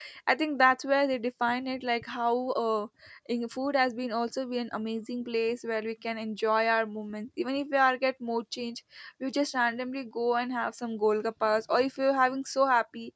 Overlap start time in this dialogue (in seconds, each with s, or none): none